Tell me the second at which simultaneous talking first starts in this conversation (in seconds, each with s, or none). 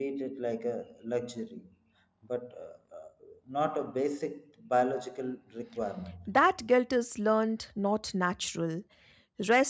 none